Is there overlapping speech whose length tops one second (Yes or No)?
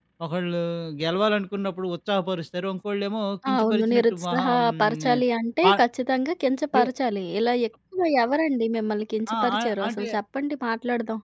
Yes